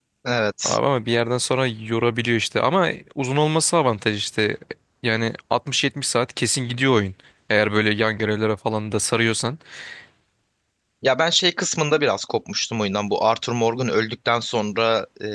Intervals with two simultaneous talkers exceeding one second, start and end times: none

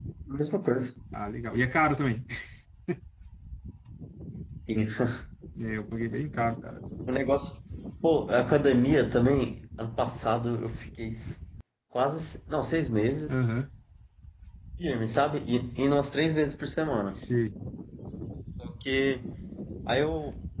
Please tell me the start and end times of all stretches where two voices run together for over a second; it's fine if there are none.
none

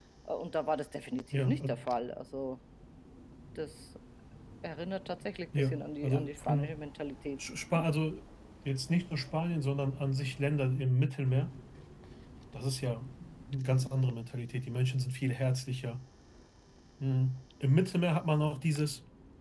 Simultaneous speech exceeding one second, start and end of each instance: 5.6-6.8

